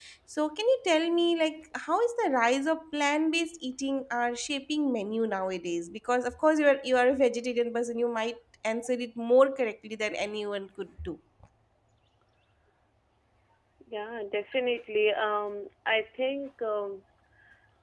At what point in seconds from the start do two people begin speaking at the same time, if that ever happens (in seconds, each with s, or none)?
none